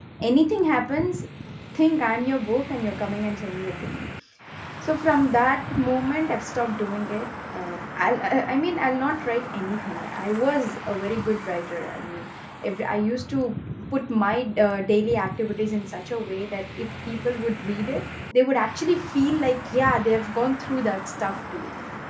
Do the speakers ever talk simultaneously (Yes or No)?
No